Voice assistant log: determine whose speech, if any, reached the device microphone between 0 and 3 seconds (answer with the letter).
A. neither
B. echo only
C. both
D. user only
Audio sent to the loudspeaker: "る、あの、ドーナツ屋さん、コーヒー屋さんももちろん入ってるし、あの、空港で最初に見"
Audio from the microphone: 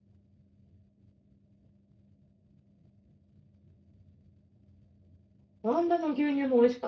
A